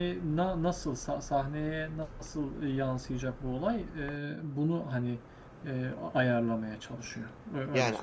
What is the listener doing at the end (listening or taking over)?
taking over